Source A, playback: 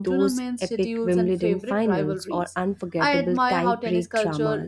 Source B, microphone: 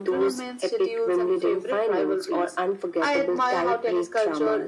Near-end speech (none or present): none